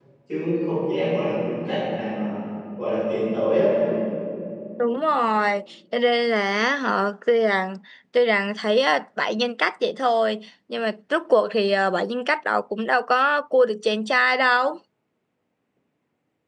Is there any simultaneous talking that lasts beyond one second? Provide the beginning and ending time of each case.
none

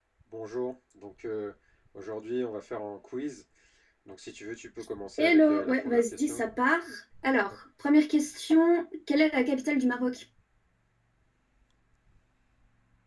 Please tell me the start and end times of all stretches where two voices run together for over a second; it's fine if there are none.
5.2-6.4

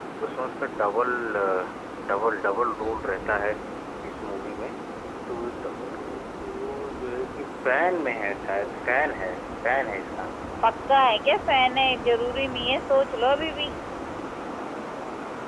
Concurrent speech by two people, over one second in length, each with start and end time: none

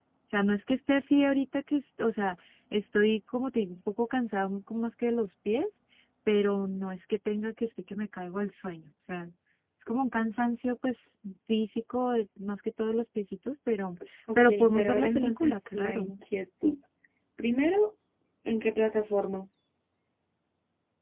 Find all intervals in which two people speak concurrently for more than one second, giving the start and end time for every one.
14.3-16.1

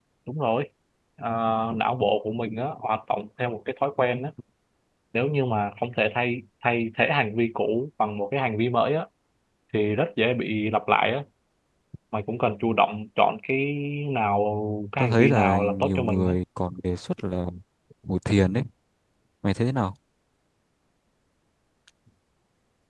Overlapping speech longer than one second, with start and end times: 15.0-16.3

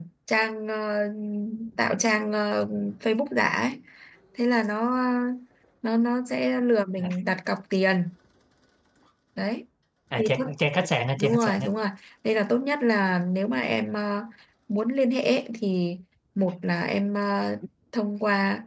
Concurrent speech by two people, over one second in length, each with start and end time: none

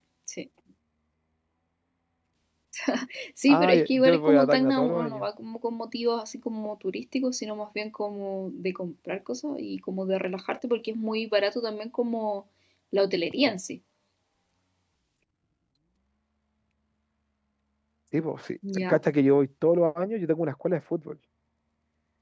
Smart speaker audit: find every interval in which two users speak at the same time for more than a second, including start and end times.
3.5-5.2

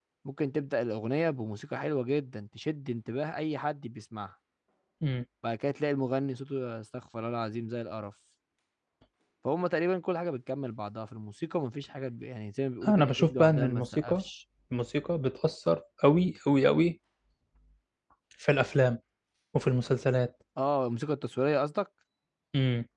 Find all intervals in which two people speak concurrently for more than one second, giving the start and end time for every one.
12.9-14.2

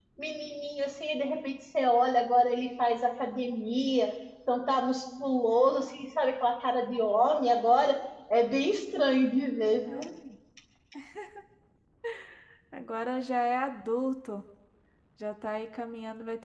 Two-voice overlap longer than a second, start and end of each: none

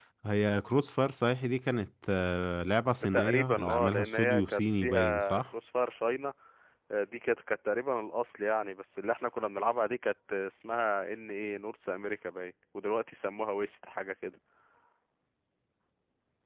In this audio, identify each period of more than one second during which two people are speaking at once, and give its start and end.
3.1-5.4

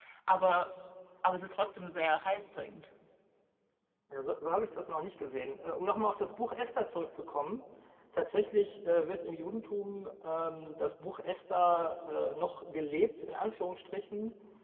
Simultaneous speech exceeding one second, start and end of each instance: none

